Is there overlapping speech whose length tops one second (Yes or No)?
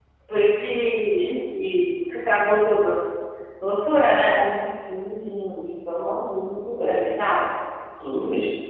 No